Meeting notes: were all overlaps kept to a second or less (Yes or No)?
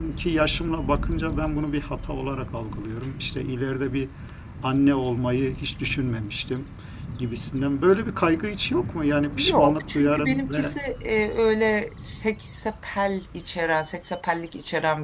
No